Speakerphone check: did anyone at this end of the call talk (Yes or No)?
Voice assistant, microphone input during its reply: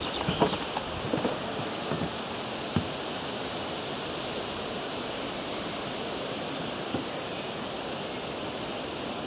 No